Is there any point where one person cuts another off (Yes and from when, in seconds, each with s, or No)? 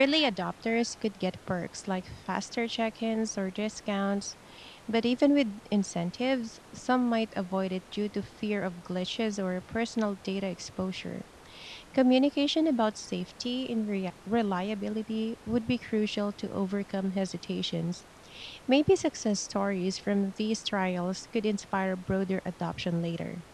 No